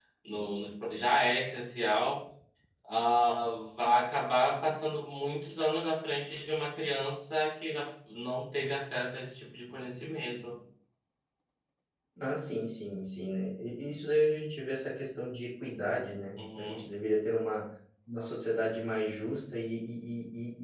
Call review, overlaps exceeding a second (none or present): none